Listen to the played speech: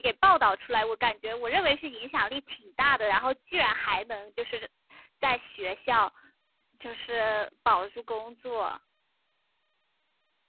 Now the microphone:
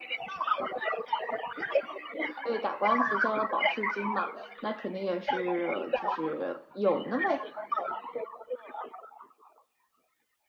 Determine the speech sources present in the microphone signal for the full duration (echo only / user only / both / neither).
both